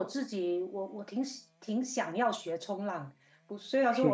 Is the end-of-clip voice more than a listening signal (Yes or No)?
No